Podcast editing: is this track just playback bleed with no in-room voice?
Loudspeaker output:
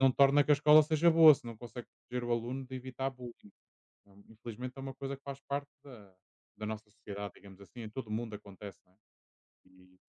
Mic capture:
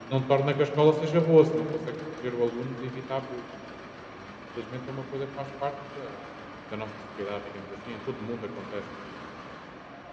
Yes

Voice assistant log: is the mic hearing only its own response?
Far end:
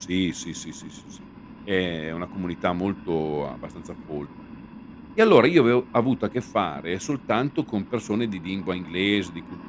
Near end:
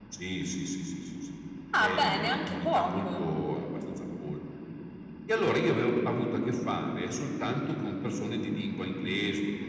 No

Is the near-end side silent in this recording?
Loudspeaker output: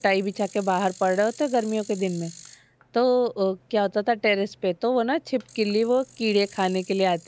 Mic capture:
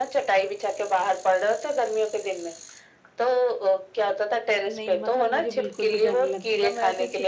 No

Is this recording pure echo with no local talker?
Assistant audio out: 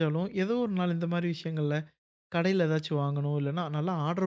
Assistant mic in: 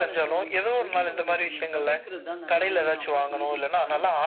No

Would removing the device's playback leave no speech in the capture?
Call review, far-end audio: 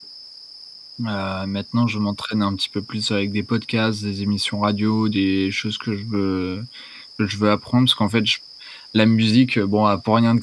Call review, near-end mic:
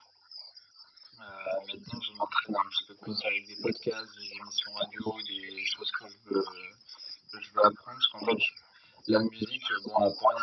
Yes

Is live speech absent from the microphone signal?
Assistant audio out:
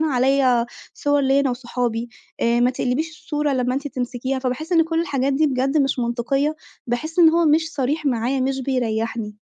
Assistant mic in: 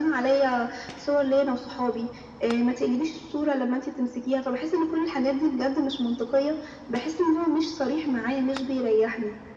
Yes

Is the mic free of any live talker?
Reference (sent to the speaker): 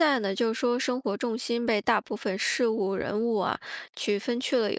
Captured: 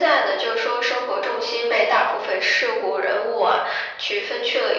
Yes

